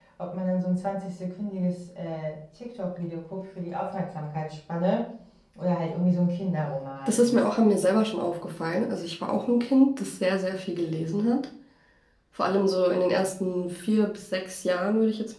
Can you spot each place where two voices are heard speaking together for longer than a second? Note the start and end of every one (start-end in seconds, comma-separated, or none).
none